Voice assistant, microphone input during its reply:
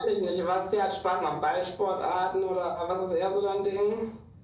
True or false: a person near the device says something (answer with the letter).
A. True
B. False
B